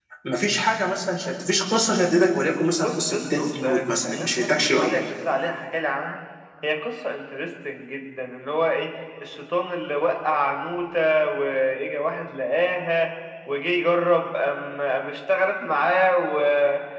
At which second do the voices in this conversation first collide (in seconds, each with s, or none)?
2.8 s